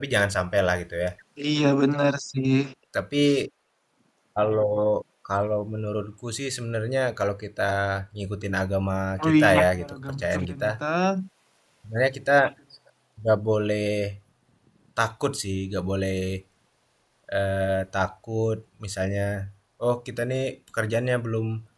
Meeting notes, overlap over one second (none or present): present